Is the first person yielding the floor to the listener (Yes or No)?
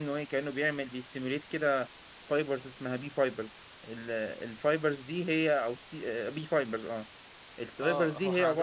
Yes